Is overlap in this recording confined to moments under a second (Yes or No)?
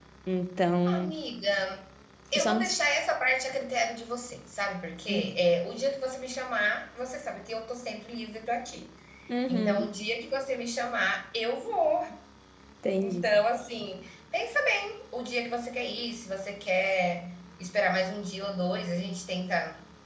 Yes